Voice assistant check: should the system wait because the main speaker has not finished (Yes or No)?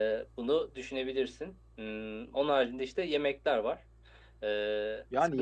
No